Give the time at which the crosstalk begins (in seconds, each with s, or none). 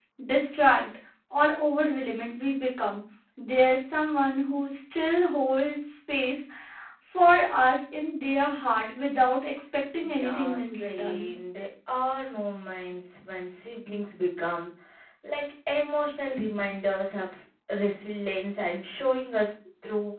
10.0 s